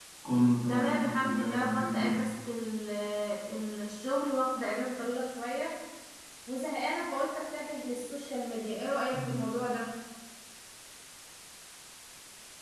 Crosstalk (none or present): present